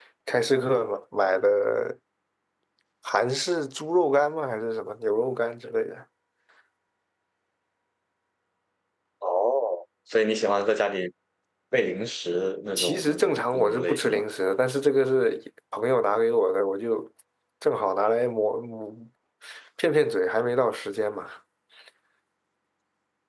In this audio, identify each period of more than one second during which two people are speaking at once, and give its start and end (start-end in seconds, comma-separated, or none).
12.8-14.2